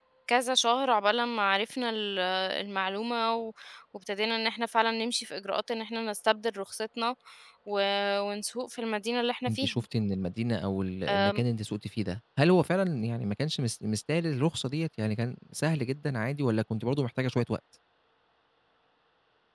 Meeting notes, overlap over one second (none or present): none